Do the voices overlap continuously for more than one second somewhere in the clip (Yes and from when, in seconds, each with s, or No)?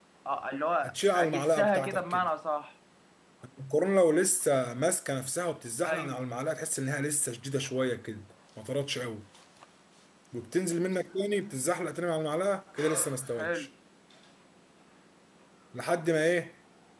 Yes, from 0.8 s